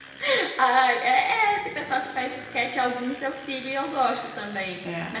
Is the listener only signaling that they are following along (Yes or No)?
Yes